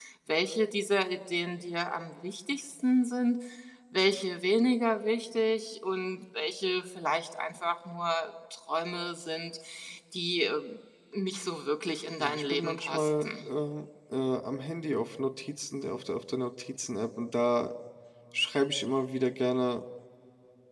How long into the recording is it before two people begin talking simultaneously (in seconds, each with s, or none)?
12.2 s